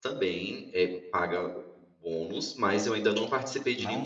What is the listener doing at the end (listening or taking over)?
taking over